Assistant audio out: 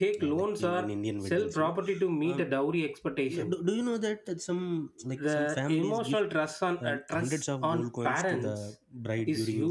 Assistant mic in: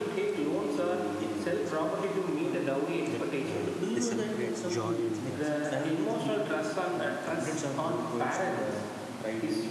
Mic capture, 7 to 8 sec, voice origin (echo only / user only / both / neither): echo only